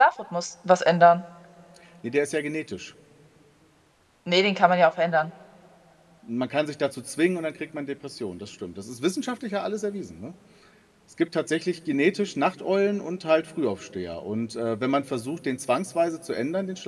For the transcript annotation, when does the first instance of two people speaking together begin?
none

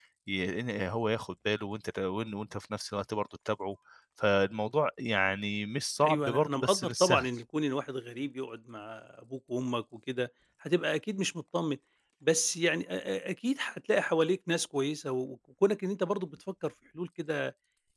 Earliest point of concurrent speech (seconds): 6.0 s

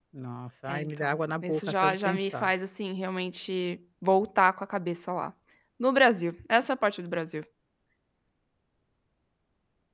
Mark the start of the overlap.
0.7 s

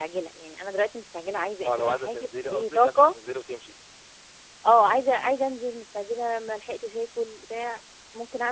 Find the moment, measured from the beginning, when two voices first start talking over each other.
1.6 s

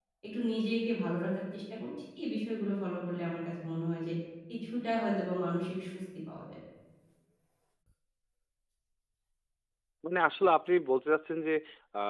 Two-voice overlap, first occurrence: none

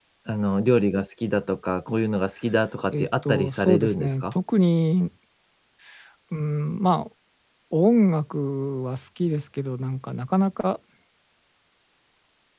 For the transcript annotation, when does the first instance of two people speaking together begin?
2.9 s

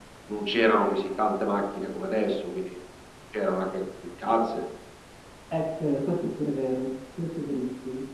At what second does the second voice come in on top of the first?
none

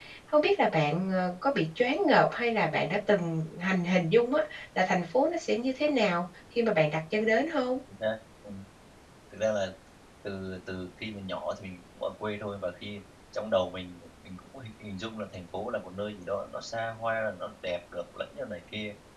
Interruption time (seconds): none

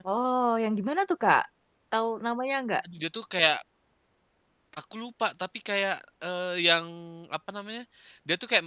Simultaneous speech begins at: none

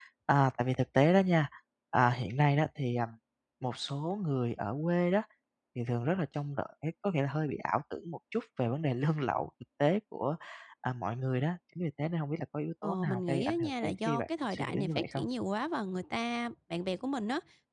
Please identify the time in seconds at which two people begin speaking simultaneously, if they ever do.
12.8 s

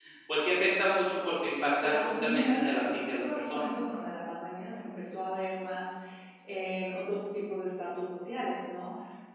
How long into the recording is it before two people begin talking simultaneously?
1.8 s

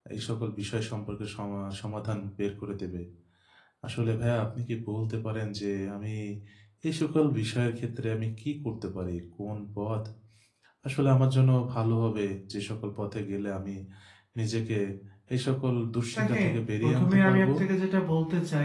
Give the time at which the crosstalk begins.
16.2 s

